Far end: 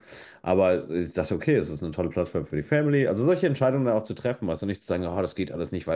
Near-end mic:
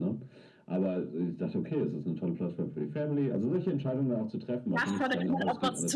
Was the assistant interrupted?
Yes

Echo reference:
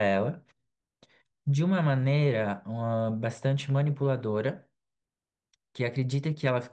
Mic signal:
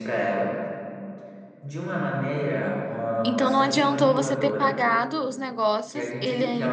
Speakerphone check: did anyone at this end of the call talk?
Yes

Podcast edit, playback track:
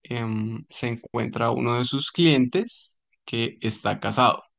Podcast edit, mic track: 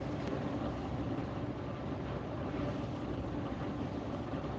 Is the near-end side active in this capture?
No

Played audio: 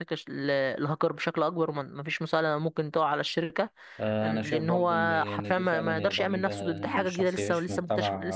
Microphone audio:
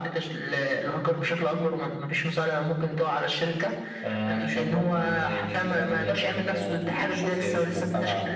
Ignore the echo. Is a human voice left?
No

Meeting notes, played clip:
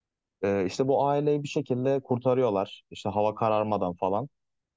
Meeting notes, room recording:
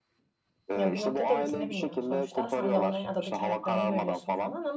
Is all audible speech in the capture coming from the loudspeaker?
No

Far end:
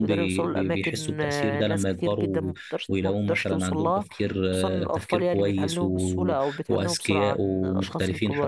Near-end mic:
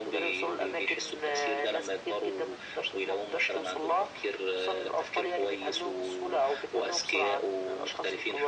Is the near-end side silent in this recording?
Yes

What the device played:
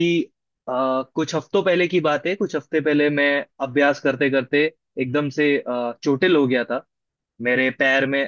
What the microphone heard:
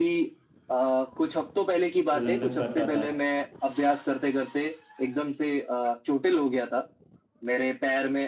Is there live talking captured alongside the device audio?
Yes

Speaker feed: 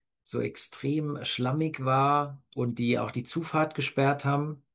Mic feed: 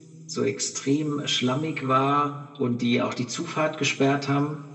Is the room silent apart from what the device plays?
Yes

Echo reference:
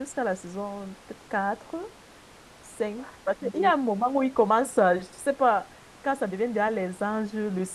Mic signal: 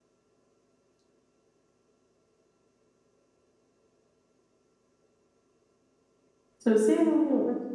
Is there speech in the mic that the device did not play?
Yes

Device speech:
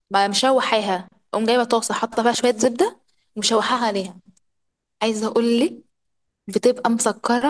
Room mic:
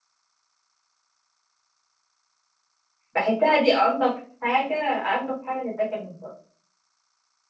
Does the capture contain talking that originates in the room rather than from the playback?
Yes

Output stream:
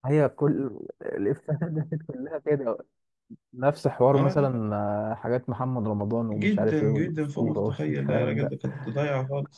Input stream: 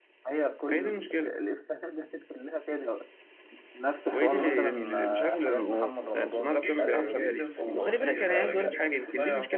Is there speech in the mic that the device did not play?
Yes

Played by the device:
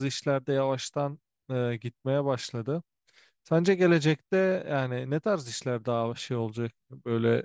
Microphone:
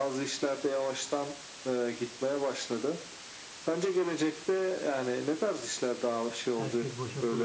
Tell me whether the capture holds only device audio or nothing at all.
No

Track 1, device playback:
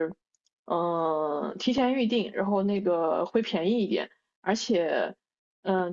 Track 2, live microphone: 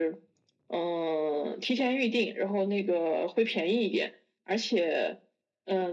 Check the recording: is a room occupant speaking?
No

